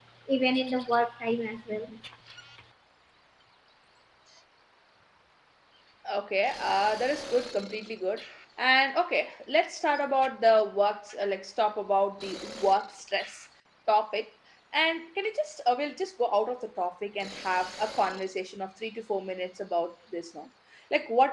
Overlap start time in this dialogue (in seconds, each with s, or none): none